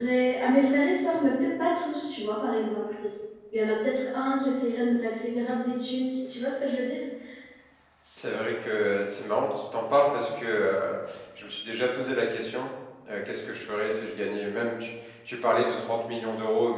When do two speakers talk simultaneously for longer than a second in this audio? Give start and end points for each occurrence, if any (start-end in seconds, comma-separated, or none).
none